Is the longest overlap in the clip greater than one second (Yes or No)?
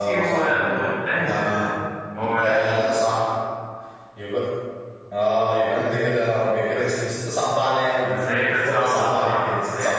Yes